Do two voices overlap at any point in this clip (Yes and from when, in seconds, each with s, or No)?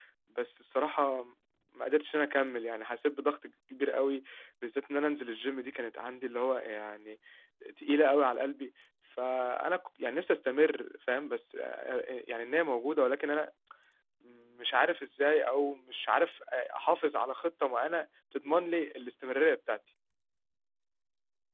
No